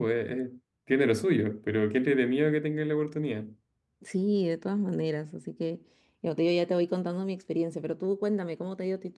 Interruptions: none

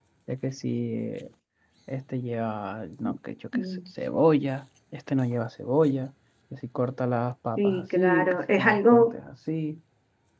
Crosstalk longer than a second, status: present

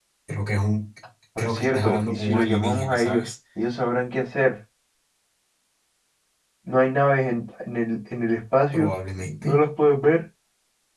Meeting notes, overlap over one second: present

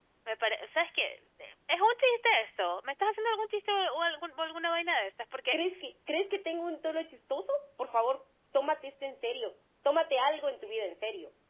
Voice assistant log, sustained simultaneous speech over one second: none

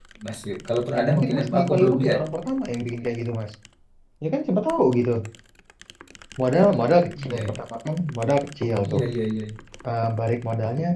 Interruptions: present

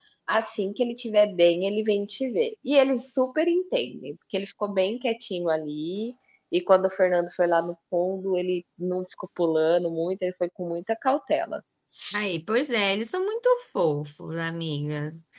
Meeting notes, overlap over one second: none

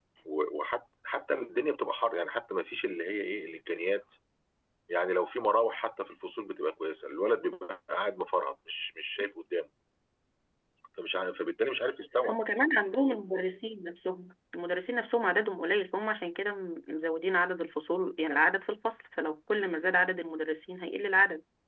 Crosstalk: none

